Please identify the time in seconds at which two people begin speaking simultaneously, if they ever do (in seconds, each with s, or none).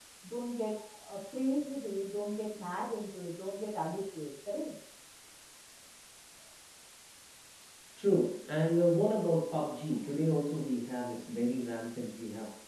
none